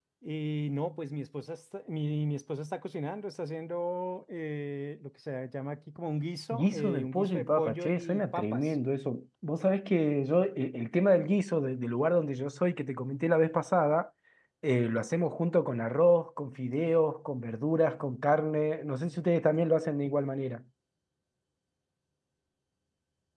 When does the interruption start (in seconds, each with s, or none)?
6.5 s